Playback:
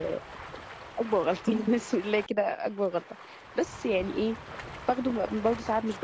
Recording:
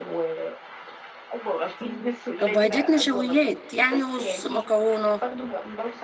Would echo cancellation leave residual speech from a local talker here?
Yes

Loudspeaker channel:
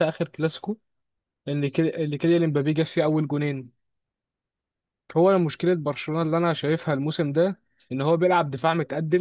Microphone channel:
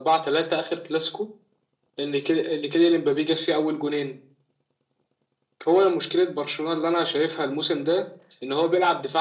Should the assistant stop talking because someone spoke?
No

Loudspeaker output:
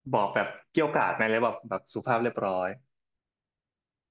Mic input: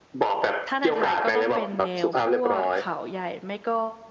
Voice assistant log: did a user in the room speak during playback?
Yes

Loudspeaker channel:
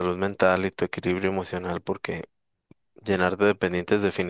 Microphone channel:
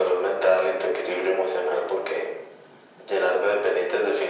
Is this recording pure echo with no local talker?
Yes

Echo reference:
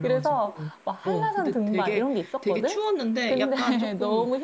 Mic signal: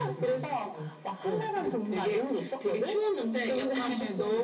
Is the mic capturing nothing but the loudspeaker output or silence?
Yes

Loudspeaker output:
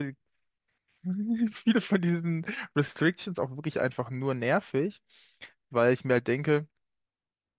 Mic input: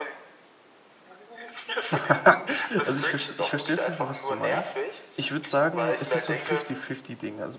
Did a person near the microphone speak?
Yes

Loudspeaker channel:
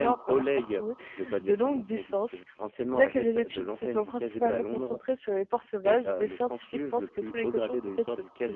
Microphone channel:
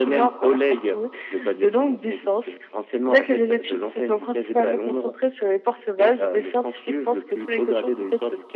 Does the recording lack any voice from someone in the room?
Yes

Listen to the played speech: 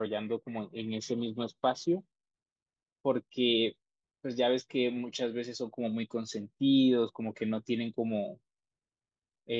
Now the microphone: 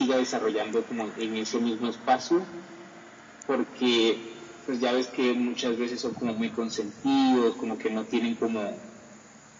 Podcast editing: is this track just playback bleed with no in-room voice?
Yes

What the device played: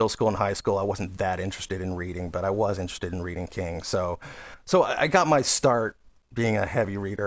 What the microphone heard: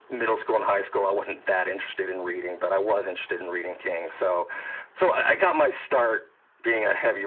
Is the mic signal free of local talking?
Yes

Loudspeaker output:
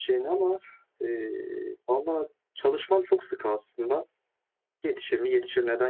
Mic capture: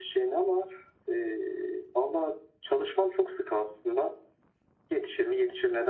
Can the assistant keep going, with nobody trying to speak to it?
Yes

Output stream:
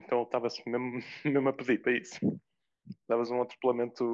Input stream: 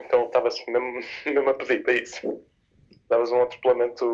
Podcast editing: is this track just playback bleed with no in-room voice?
Yes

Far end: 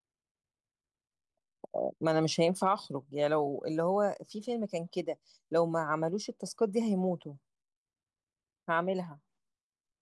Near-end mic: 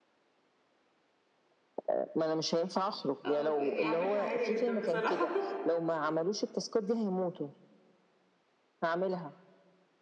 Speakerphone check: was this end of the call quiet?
No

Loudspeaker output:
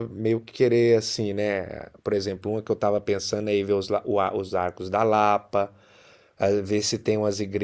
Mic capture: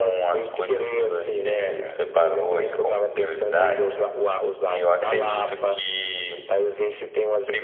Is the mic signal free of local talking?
No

